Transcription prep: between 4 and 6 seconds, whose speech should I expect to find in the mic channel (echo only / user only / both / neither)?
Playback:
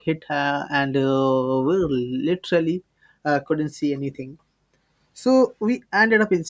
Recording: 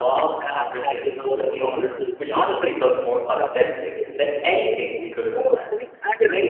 both